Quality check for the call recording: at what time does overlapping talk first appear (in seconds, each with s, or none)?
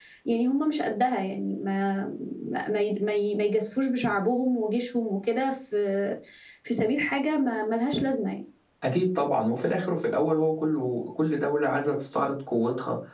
none